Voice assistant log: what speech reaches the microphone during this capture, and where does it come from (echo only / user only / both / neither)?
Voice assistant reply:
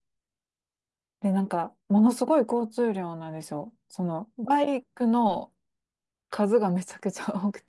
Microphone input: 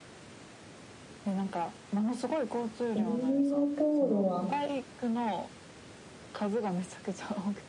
both